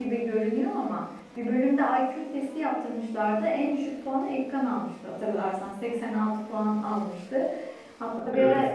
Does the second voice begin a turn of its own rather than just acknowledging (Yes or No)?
No